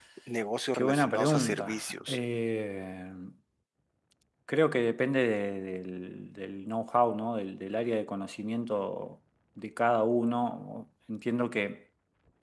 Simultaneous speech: Yes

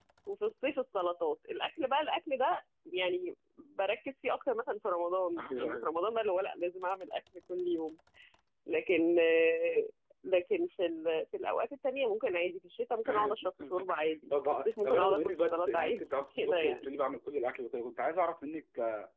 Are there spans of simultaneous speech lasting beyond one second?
Yes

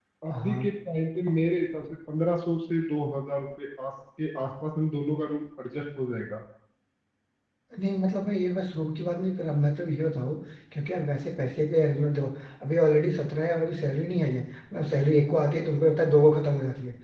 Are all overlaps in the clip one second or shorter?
Yes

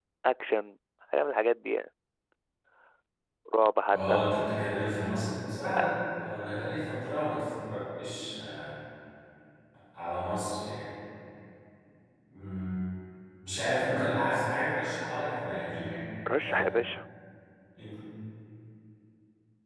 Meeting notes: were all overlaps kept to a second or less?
Yes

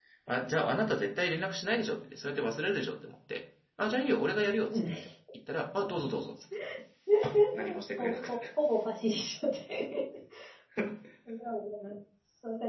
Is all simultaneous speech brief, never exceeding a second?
Yes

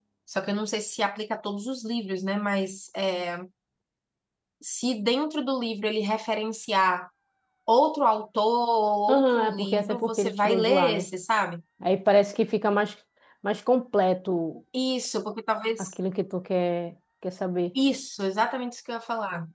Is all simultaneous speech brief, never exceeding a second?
No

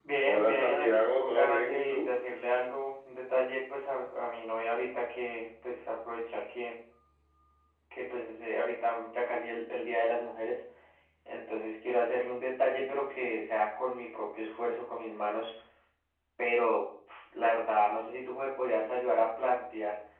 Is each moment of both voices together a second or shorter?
No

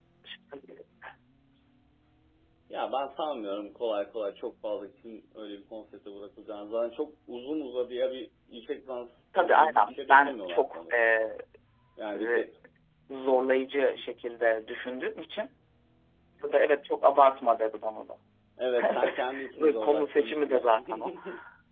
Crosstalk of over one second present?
Yes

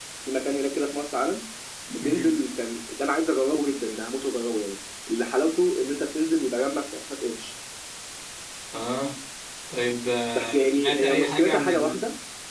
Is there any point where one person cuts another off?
Yes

